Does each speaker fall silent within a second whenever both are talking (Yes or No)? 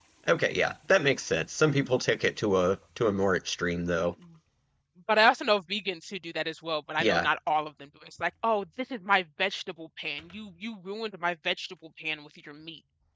Yes